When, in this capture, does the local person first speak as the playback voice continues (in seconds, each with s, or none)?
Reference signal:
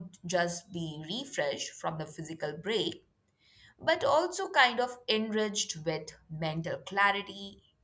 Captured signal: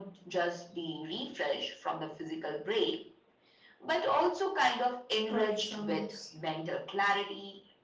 5.3 s